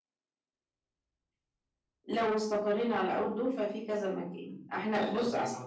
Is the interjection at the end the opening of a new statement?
Yes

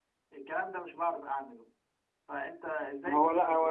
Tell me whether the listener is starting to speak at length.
Yes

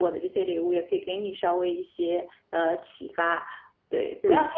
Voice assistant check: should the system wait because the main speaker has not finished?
Yes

